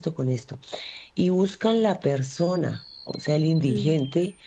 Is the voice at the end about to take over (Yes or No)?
No